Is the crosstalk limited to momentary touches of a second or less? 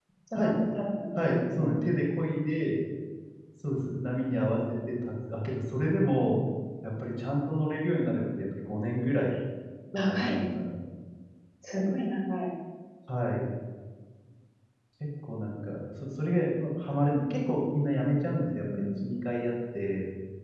Yes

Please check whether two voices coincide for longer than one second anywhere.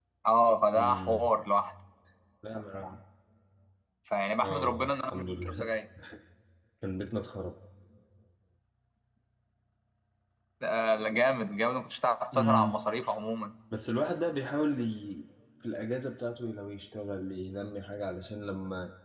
Yes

